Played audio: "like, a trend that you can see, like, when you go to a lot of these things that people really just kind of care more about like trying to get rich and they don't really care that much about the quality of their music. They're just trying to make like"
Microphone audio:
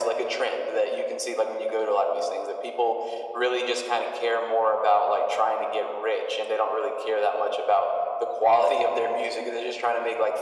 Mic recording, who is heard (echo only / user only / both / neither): echo only